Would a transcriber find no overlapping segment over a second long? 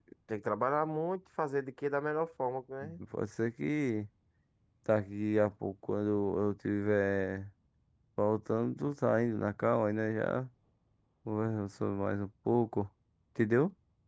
Yes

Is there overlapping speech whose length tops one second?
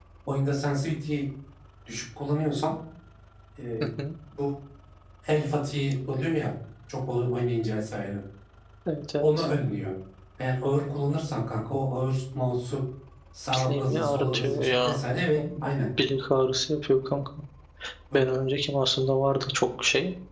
Yes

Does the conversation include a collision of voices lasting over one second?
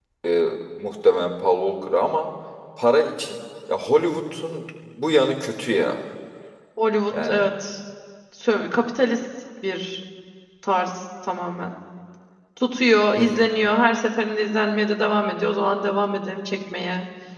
No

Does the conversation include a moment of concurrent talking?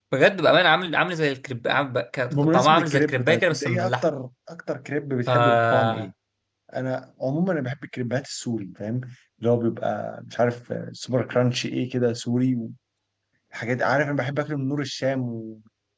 Yes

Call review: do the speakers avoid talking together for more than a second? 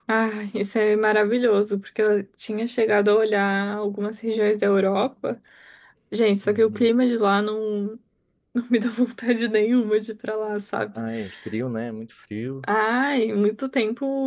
Yes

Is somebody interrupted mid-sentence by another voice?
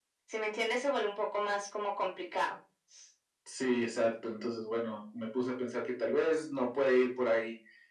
No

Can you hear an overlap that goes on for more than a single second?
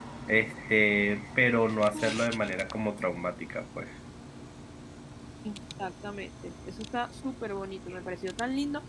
No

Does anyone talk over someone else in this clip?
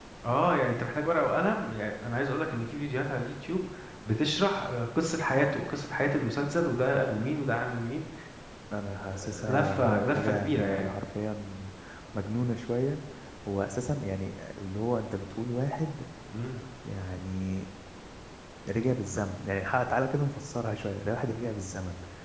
Yes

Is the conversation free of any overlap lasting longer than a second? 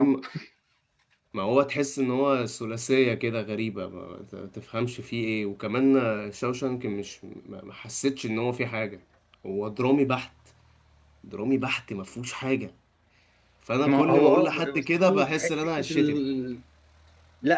No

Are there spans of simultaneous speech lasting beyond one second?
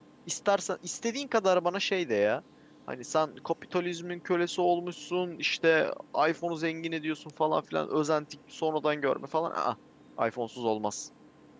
No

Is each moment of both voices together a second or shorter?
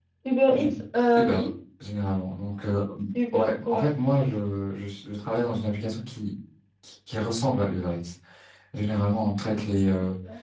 Yes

